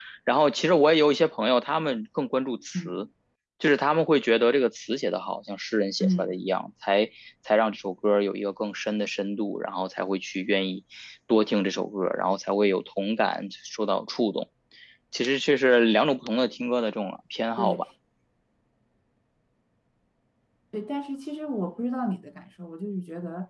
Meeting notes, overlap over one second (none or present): none